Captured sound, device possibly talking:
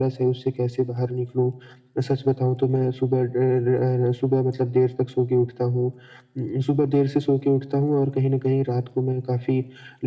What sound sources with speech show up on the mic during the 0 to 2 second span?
echo only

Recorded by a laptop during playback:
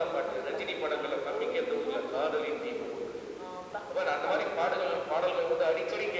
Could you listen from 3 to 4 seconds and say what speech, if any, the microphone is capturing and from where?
echo only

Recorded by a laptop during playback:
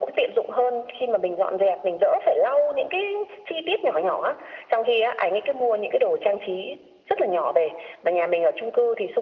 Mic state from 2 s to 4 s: echo only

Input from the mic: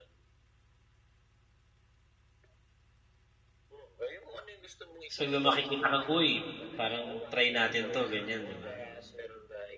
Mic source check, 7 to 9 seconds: both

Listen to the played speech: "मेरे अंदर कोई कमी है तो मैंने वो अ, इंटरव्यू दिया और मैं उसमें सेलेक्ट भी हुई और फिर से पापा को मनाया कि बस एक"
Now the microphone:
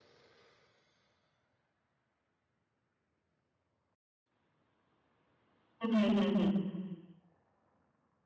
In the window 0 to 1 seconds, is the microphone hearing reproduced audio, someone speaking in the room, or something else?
neither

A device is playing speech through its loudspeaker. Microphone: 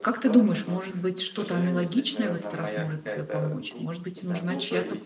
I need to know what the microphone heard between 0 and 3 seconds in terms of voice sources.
both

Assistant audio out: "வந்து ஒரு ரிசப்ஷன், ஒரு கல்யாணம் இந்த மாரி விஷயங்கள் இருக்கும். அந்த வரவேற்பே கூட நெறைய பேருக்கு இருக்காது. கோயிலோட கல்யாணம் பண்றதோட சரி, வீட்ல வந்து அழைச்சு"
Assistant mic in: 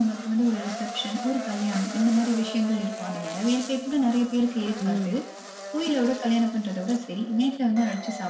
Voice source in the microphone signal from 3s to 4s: echo only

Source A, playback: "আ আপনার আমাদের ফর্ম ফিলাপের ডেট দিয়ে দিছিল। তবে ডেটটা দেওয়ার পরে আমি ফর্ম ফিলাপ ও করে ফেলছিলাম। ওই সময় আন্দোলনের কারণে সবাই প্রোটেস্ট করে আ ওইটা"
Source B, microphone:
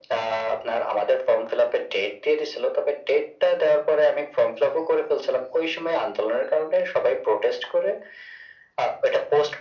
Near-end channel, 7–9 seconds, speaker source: echo only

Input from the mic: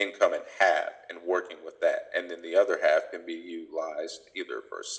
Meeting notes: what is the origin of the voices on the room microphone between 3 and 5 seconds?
echo only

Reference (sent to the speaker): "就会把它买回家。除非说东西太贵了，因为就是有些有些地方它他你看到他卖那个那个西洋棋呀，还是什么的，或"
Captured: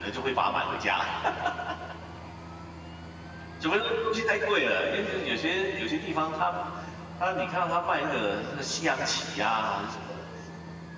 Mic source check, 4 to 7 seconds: echo only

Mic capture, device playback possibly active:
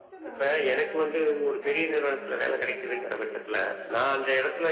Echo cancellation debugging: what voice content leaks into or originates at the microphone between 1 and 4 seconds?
both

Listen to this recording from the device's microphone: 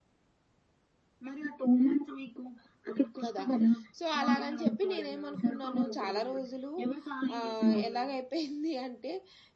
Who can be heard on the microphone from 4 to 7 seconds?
both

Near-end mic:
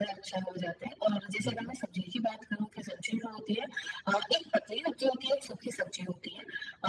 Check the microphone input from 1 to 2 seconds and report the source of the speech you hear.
both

